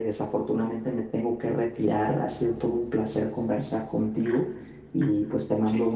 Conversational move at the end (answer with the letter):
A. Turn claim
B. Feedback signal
B